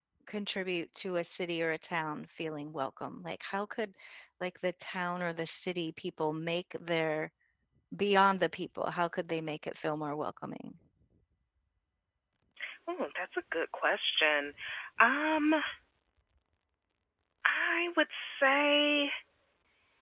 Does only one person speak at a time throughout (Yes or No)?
Yes